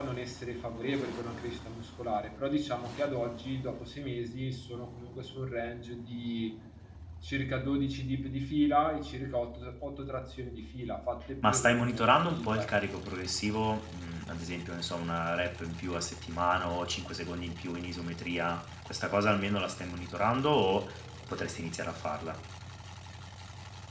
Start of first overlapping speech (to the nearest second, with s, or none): 11 s